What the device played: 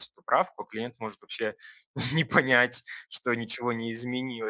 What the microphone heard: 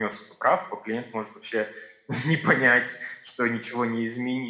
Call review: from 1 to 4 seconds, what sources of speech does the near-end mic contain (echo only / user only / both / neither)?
echo only